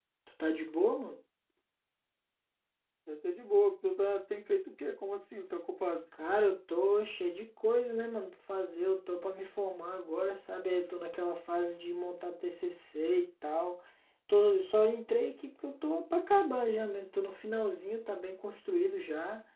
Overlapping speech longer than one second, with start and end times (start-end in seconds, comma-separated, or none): none